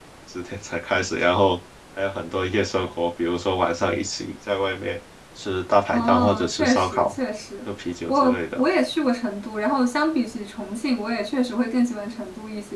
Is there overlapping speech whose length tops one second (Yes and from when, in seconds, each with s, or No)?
Yes, from 5.9 s